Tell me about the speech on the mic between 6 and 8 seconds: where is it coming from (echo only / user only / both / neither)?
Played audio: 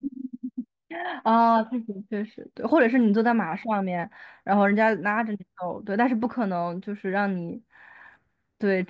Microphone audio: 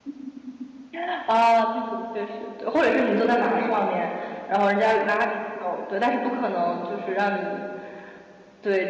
echo only